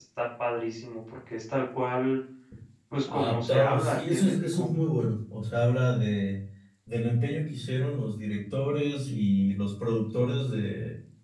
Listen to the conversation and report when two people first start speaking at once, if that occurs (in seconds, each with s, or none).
3.1 s